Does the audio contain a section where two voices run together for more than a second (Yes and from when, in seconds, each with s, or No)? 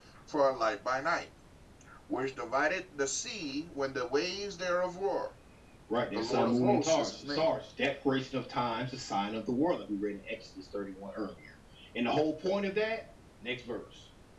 Yes, from 6.1 s